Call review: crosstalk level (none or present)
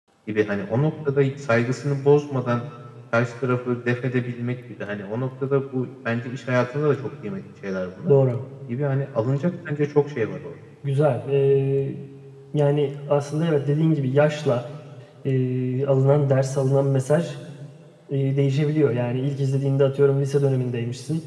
none